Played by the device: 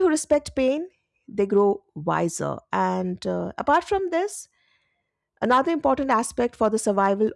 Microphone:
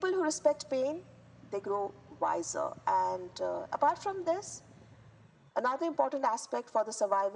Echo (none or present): present